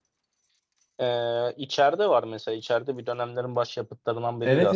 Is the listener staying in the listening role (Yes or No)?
No